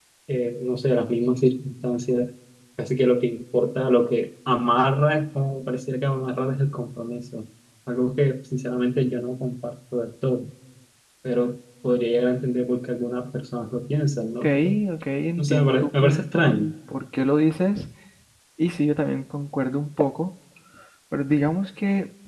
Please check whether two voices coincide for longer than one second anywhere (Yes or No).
Yes